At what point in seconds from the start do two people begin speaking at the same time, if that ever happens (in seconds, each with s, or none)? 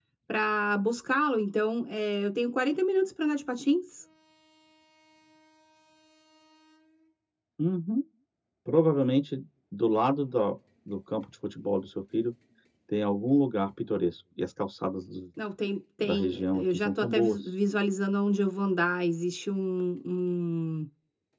16.0 s